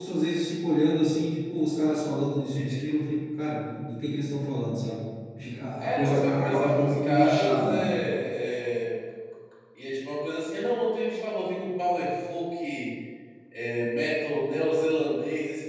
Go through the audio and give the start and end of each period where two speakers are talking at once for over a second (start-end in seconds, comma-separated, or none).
5.8-7.9